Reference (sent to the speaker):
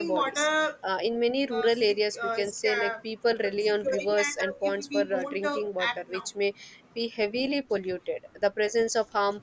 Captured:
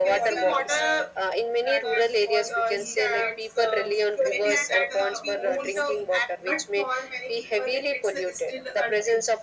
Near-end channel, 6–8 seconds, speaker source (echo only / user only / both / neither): both